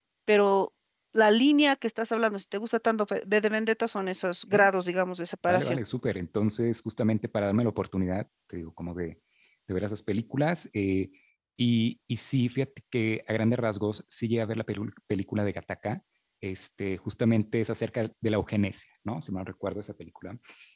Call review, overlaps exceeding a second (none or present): none